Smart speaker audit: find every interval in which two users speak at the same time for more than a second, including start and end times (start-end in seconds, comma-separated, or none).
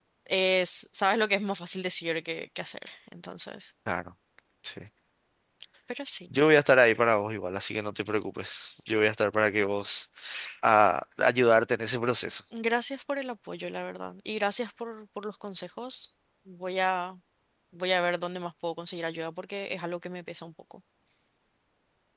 none